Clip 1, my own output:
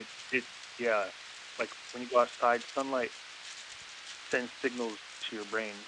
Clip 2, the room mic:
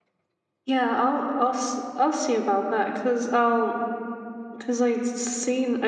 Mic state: user only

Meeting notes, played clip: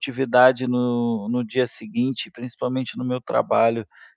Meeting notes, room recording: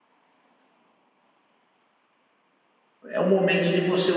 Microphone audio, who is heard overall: user only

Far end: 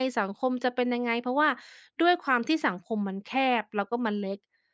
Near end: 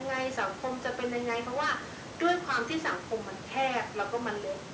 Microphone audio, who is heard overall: echo only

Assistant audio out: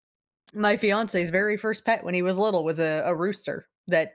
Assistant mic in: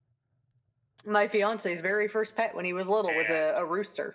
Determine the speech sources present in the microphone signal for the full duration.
both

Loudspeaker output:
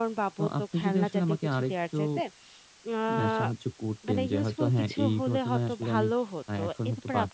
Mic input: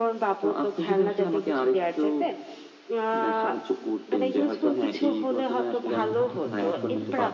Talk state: both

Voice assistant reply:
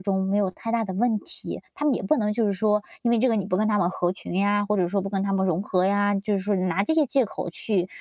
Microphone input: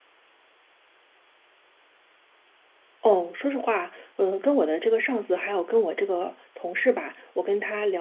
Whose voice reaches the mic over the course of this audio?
user only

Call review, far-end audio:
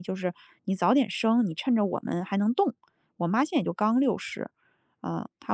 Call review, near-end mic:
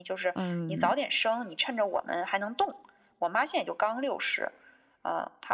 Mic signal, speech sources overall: both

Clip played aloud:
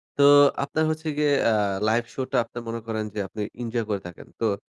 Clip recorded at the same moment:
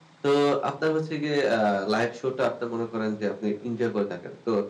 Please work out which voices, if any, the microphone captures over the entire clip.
echo only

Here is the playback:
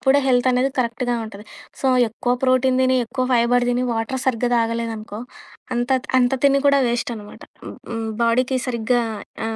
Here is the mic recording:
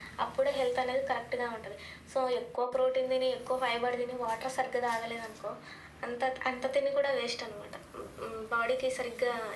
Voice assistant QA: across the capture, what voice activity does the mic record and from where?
echo only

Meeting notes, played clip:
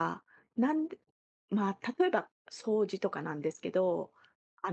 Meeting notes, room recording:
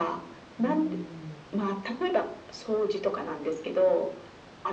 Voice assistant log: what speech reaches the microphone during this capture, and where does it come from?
both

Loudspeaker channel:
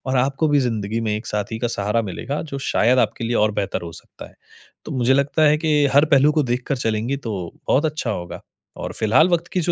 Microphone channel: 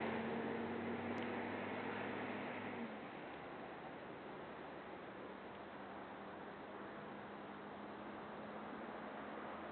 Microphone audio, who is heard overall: neither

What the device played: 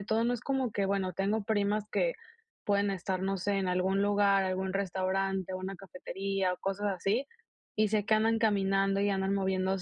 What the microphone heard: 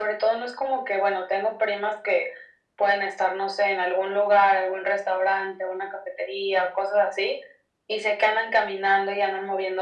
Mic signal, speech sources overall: echo only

